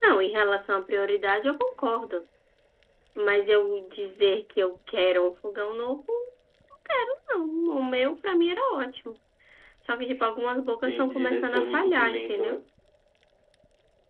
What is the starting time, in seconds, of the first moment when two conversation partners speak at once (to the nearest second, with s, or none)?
11 s